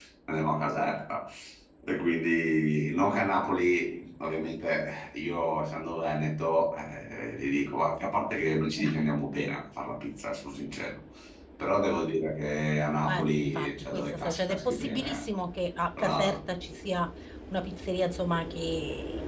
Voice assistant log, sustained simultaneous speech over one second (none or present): present